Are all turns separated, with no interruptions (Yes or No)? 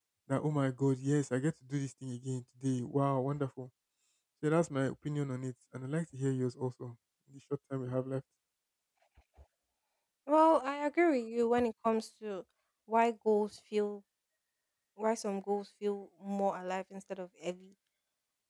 Yes